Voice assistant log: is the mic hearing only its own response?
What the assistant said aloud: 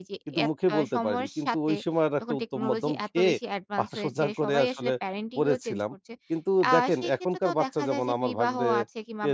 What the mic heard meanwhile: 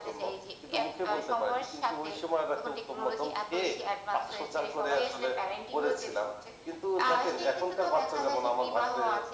Yes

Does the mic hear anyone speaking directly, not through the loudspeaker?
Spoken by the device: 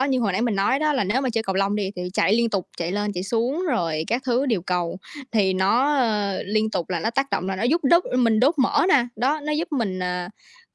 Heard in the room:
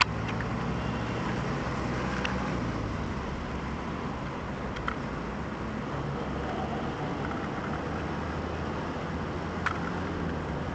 No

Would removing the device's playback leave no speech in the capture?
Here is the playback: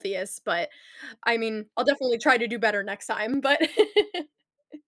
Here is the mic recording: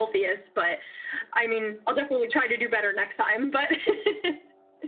Yes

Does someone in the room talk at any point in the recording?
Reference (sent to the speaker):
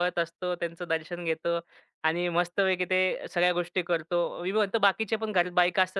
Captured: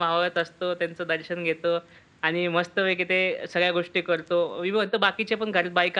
No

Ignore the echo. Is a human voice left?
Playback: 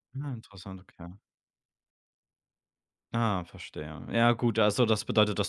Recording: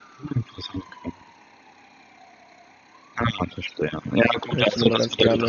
Yes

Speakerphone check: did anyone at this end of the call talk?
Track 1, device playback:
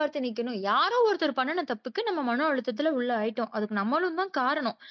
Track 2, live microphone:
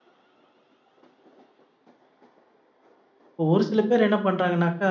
Yes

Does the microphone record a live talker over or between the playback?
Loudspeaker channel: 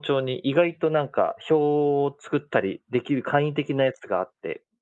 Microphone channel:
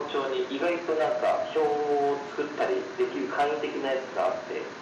No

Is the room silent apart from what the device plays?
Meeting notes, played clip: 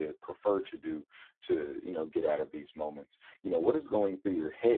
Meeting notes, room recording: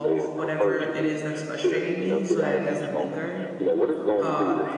No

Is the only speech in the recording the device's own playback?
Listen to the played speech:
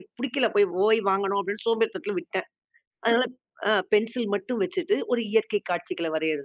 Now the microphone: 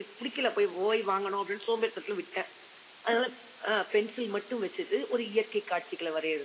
Yes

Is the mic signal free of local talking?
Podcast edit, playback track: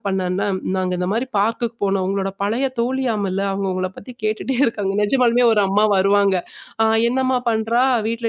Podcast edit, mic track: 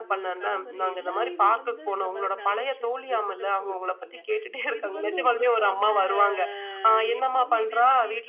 No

